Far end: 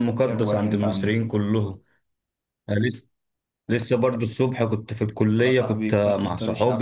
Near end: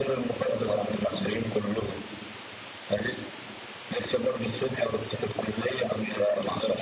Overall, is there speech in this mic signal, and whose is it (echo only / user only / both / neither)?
echo only